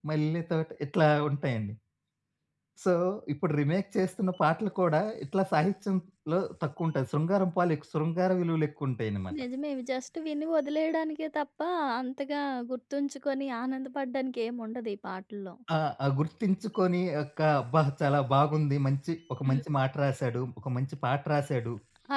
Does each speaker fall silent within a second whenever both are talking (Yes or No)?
Yes